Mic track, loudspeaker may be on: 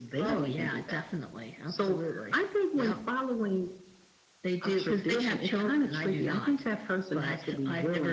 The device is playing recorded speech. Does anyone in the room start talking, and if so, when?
none

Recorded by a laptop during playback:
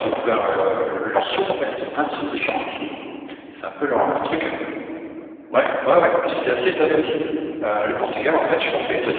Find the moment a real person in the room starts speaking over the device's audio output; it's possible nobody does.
none

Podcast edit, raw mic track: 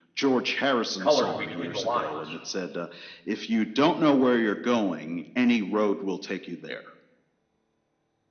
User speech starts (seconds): 1 s

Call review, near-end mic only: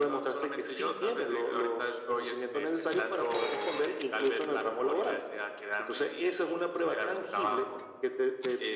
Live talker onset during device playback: none

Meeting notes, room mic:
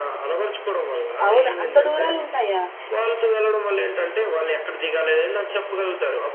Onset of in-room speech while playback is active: 1 s

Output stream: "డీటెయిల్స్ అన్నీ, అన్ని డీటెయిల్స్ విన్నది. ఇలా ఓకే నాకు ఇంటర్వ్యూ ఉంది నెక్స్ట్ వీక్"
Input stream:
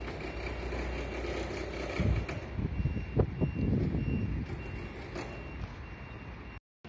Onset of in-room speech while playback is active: none

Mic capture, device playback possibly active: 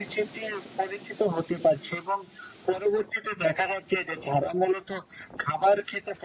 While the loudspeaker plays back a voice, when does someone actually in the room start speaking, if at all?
none

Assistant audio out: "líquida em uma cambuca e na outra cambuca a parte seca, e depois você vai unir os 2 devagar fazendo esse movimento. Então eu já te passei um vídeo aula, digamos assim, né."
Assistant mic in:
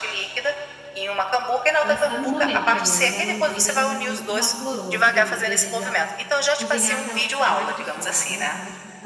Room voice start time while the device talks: 2 s

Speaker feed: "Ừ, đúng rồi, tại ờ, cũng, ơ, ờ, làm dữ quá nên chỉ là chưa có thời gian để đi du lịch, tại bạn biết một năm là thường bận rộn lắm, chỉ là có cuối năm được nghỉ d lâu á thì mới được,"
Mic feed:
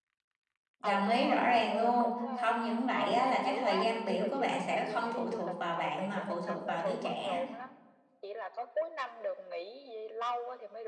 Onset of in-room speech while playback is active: 1 s

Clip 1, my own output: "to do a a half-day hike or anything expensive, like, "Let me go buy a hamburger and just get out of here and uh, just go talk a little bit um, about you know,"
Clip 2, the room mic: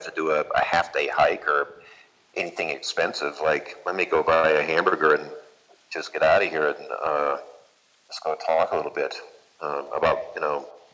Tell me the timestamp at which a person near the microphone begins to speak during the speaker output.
none

